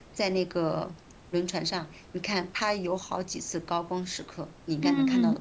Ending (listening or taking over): taking over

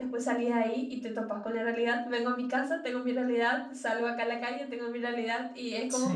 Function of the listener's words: listening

